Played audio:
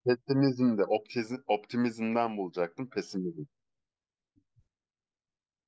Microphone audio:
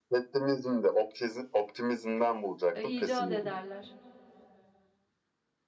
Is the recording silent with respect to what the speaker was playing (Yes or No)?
No